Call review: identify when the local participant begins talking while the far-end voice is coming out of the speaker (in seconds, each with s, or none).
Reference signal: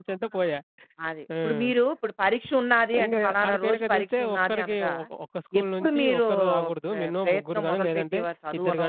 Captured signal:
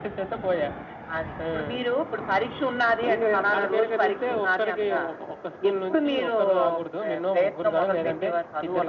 none